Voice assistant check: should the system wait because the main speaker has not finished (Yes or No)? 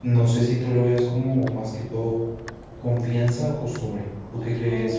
No